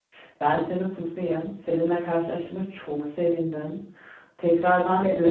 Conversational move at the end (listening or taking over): listening